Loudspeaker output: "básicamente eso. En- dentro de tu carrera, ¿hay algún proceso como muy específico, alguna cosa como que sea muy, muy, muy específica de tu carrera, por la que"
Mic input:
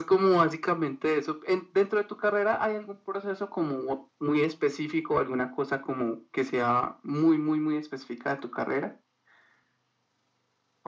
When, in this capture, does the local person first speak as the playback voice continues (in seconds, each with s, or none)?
none